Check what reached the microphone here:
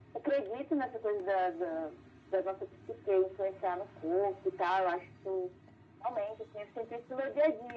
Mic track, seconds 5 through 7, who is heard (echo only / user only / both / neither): echo only